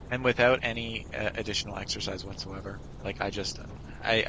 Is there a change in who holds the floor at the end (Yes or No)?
No